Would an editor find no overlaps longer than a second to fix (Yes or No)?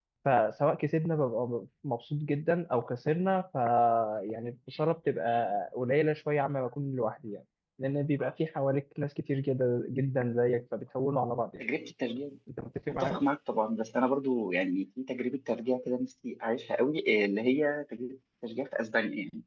Yes